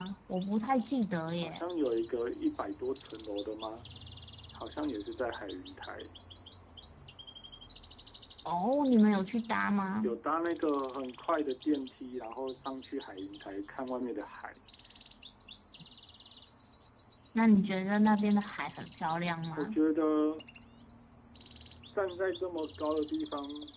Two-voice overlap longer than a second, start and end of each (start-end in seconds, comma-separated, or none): none